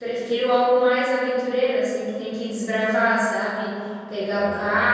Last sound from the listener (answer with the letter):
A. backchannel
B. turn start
A